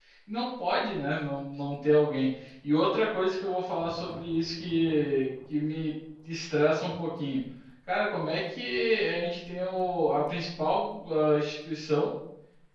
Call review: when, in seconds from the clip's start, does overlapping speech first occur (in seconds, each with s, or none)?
none